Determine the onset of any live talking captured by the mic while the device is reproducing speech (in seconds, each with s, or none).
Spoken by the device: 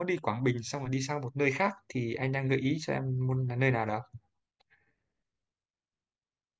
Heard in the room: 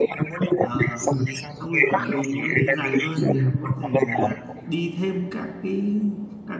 0.6 s